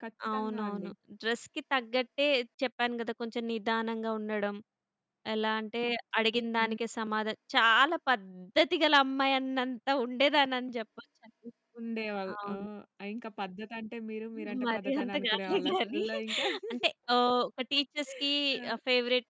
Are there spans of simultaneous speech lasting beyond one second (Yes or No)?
Yes